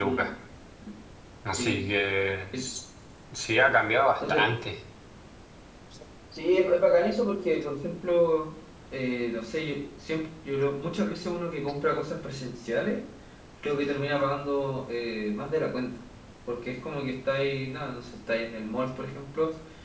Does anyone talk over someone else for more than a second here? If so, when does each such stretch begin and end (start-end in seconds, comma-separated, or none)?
none